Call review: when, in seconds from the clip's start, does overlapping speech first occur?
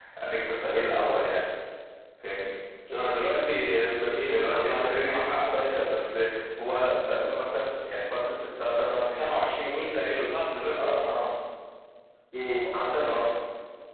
4.2 s

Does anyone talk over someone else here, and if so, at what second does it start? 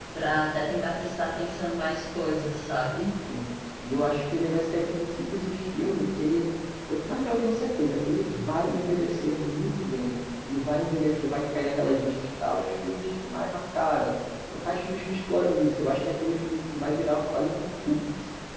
none

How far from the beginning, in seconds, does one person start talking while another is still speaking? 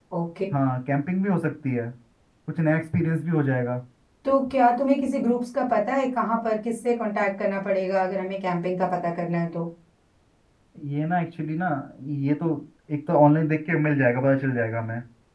none

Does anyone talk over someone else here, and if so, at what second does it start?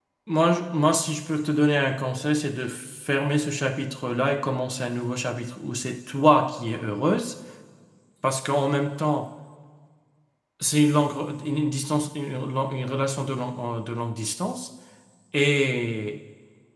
none

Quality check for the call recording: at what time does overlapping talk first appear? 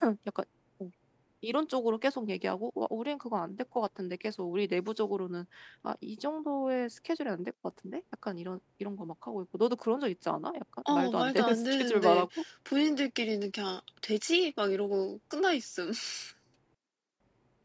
10.8 s

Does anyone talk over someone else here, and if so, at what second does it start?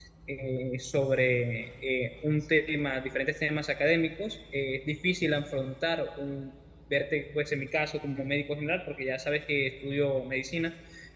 none

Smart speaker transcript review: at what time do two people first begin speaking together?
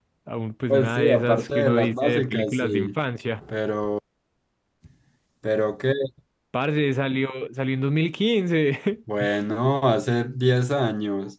0.7 s

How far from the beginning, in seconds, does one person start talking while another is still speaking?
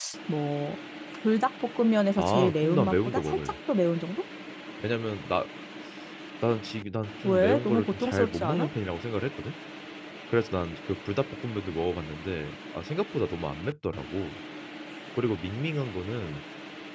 2.2 s

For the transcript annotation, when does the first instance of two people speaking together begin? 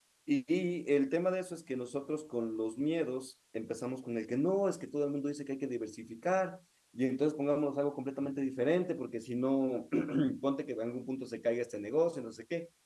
none

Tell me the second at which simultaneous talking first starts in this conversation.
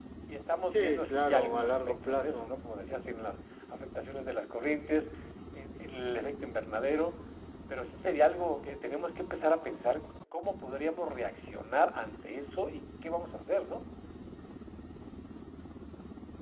0.7 s

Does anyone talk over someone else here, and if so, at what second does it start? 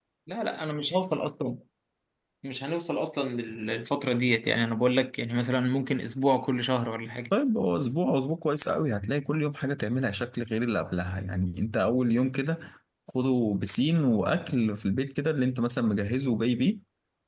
none

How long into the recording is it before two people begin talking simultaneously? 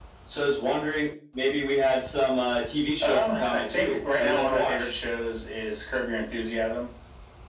3.0 s

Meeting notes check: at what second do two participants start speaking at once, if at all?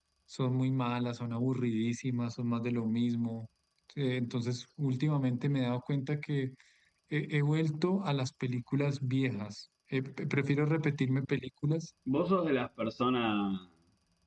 none

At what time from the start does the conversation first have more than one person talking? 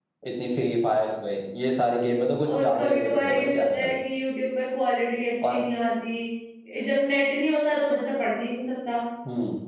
2.5 s

